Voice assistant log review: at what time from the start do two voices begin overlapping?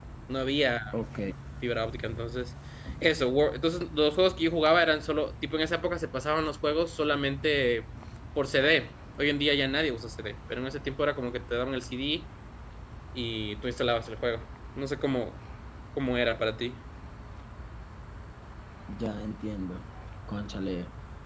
none

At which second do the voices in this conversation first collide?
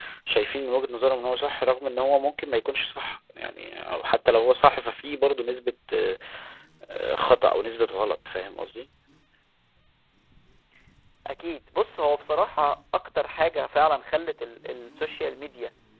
none

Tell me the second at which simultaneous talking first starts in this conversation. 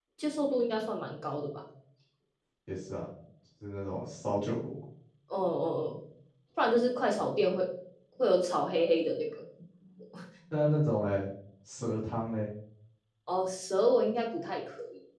none

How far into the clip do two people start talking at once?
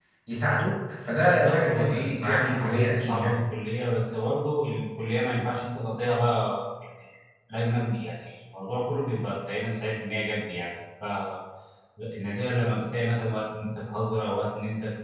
1 s

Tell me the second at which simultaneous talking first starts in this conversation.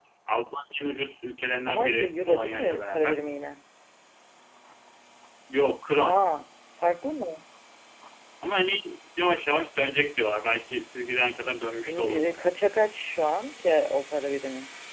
2 s

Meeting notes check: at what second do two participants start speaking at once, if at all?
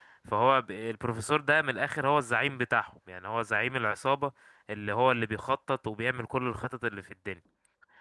none

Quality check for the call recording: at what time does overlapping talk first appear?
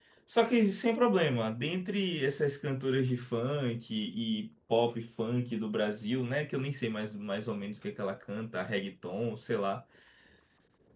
none

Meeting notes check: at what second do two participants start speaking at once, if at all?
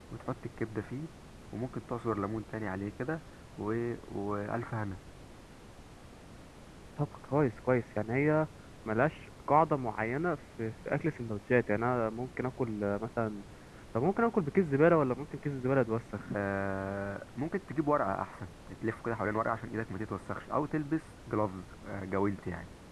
none

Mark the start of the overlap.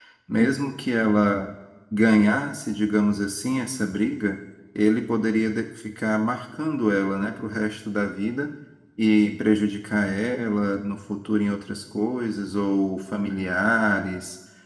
none

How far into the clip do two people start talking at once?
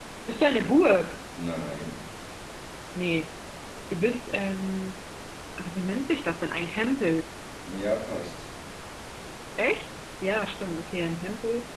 none

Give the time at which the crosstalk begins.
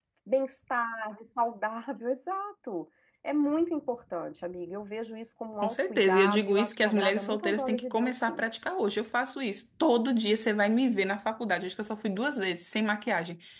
6 s

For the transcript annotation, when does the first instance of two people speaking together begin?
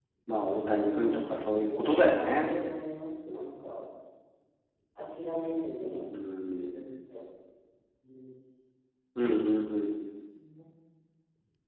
1 s

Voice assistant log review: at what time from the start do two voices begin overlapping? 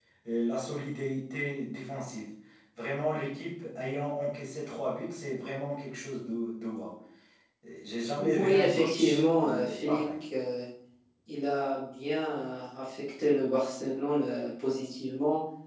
8 s

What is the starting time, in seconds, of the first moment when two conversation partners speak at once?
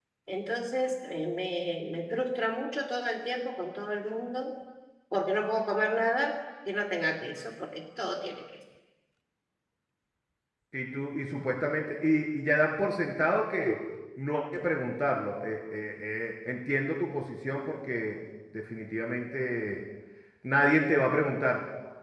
none

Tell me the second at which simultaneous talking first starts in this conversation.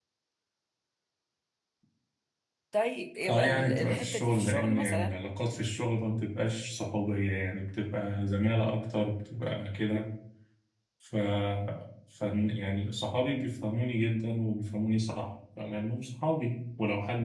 3 s

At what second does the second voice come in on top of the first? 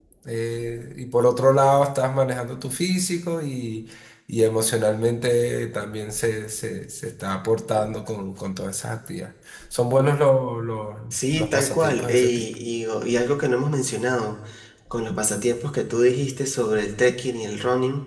11 s

